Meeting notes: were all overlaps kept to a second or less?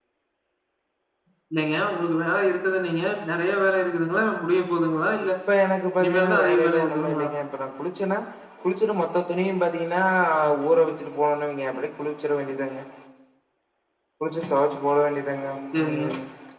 No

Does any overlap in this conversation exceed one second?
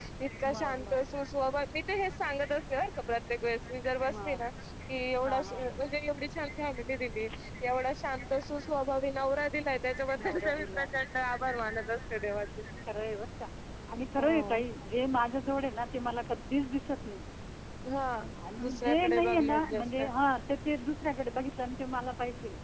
Yes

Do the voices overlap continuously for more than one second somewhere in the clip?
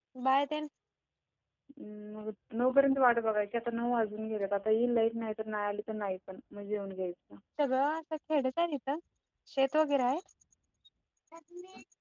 No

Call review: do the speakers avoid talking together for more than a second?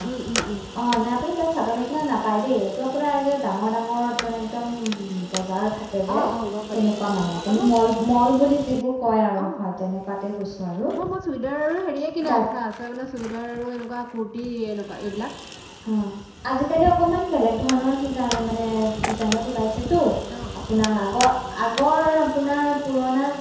Yes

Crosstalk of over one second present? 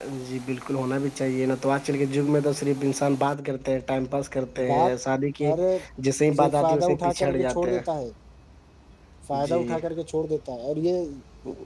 Yes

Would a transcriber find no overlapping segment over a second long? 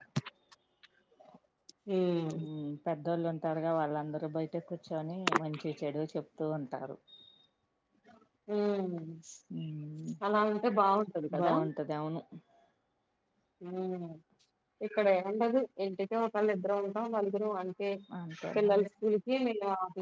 Yes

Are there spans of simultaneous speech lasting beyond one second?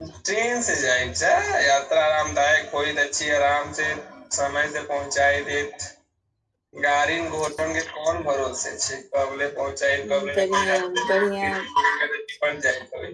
Yes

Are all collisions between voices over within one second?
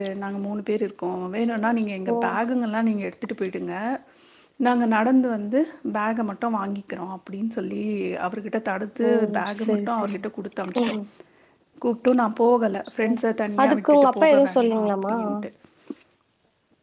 No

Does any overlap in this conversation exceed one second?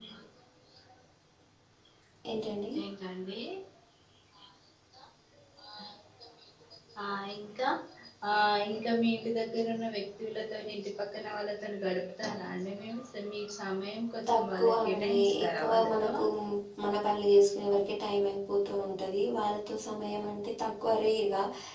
Yes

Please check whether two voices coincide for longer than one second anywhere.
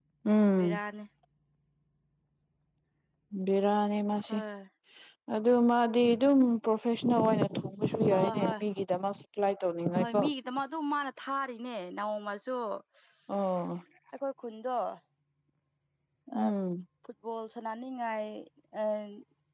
No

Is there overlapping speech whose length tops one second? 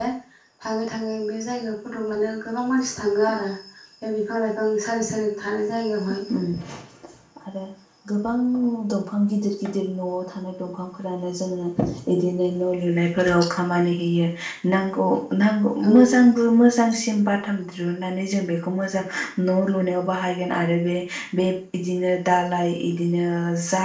No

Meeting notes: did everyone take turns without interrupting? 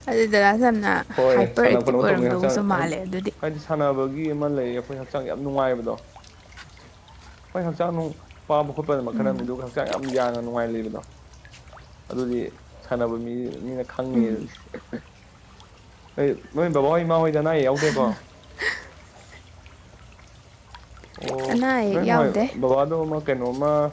No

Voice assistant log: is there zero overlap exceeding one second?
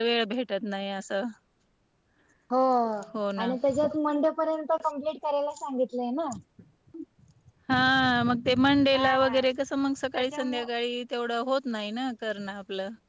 Yes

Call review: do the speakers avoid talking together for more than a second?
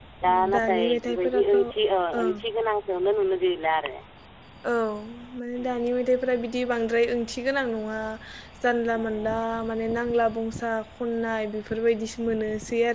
No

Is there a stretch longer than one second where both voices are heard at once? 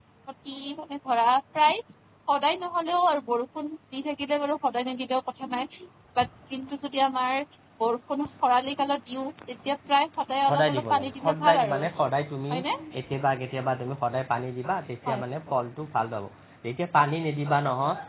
Yes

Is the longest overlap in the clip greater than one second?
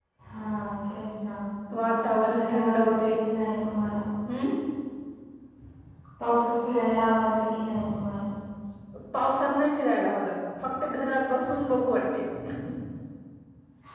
Yes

